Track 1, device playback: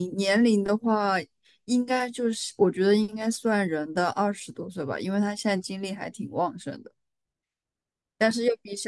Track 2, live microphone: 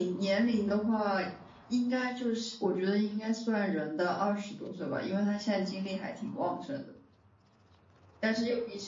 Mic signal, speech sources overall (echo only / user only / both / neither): echo only